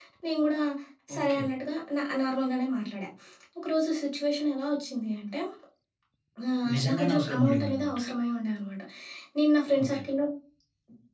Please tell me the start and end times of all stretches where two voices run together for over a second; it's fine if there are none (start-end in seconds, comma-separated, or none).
6.7-7.9